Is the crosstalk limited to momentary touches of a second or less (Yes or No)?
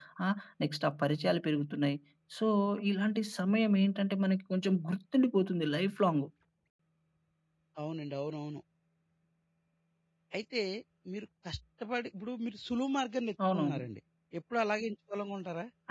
Yes